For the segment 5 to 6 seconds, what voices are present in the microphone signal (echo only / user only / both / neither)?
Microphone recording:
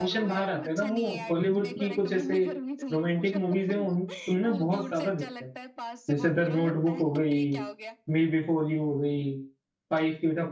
both